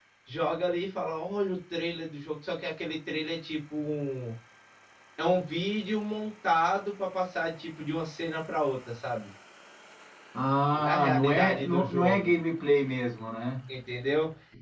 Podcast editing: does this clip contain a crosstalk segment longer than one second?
Yes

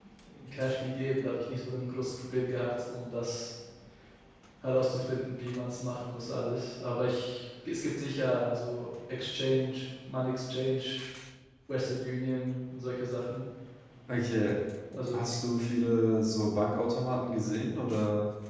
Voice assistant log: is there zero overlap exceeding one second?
Yes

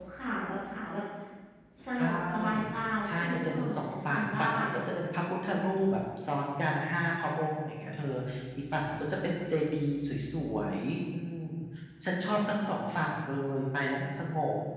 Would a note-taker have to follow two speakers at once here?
Yes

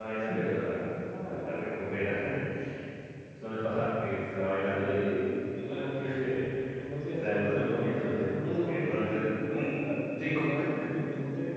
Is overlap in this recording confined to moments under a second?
No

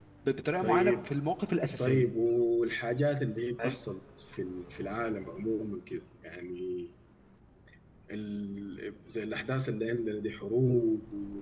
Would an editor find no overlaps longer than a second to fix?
Yes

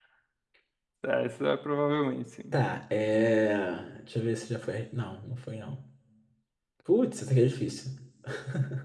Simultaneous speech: No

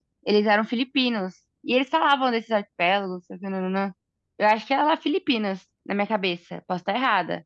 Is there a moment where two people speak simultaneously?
No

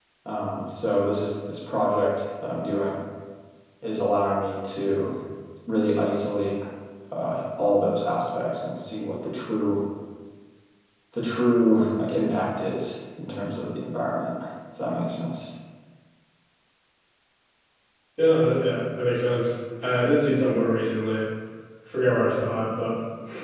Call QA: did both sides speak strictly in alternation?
Yes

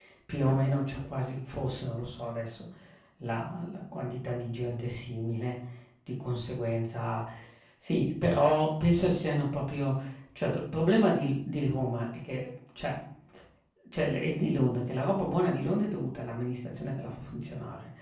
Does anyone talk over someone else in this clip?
No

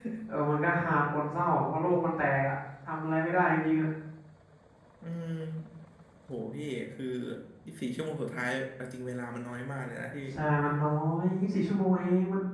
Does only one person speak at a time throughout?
Yes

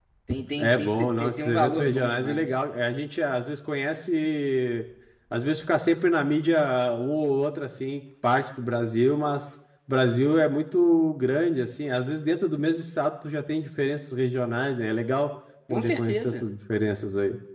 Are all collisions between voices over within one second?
No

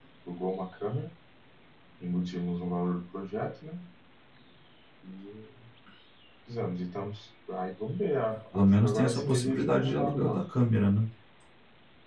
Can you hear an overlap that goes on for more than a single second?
Yes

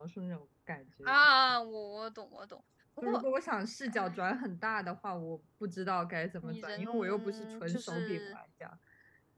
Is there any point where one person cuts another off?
Yes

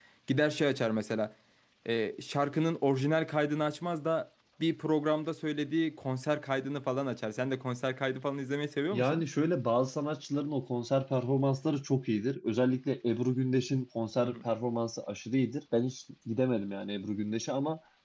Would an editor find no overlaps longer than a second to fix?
Yes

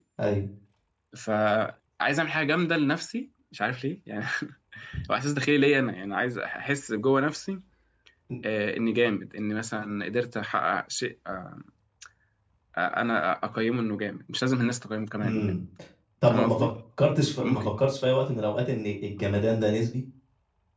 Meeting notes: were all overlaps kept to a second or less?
Yes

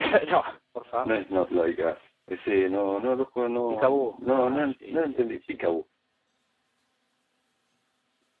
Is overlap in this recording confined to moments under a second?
No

